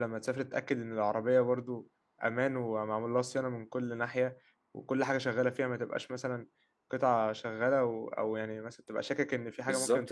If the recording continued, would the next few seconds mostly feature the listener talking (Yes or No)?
Yes